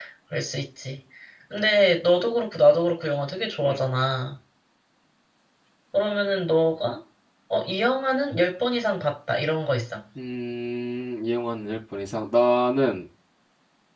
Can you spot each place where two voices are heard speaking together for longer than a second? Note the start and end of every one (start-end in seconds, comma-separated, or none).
none